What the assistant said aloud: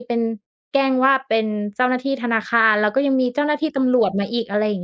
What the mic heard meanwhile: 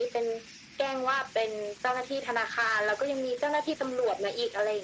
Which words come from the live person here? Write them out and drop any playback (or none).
none